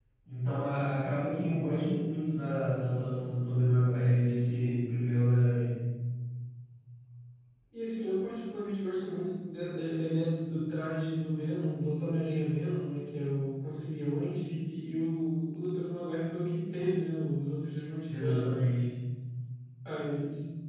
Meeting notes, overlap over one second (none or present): none